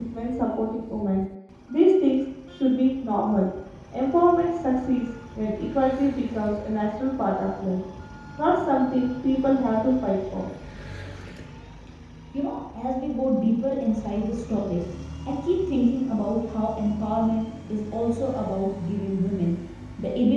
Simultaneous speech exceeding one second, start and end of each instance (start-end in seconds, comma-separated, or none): none